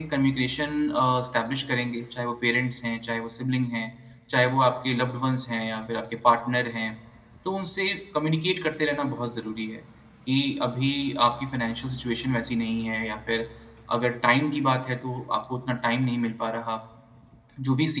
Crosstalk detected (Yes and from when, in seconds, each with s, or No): No